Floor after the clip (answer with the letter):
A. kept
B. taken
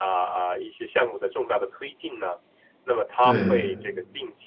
A